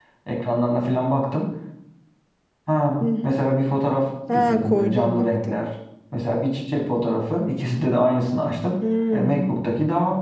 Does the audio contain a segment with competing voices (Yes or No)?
Yes